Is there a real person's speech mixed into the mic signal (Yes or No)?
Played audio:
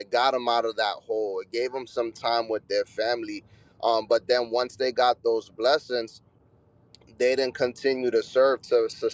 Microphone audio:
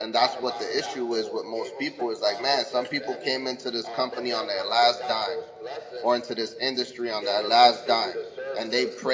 Yes